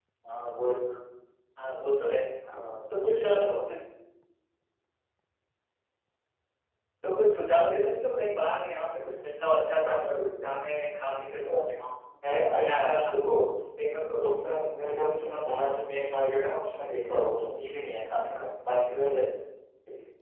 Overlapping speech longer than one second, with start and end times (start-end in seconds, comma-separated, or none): none